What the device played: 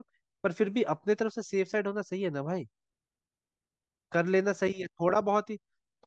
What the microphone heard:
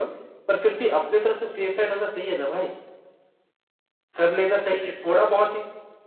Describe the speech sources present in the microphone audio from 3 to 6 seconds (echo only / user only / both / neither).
echo only